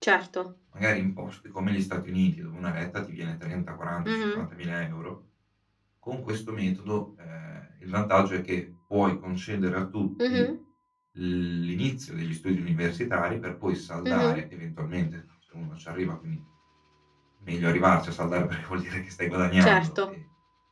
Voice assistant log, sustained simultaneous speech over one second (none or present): none